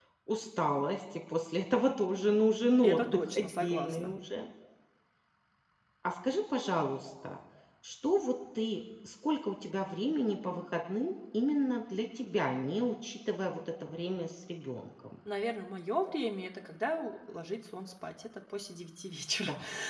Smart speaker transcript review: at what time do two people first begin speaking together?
2.8 s

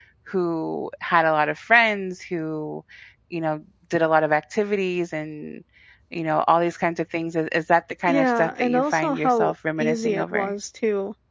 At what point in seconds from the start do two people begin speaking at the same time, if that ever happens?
8.1 s

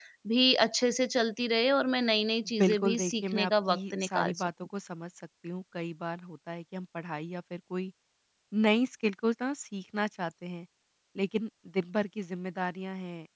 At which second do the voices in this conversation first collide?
2.6 s

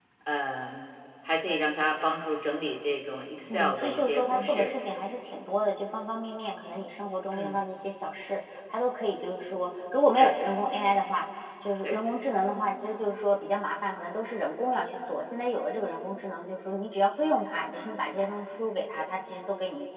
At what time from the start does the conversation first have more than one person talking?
3.5 s

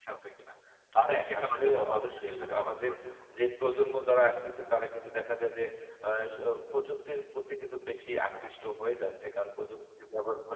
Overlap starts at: 1.1 s

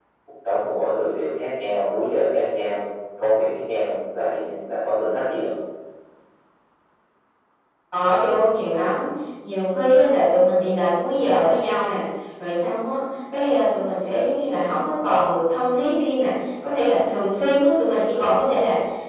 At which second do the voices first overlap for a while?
none

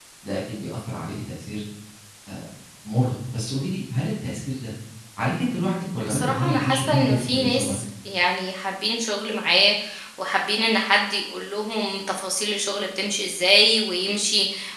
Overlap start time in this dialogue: 6.0 s

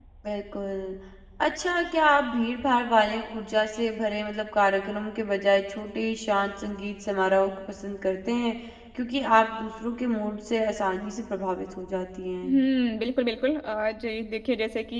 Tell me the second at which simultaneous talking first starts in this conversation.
none

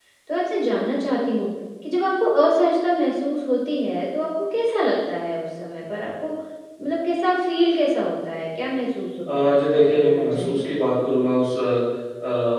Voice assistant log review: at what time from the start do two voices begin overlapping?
9.2 s

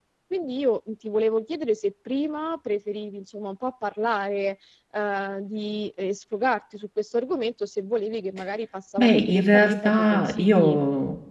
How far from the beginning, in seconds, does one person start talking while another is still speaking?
9.0 s

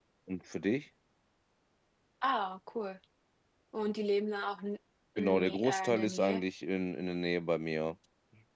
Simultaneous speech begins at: 5.2 s

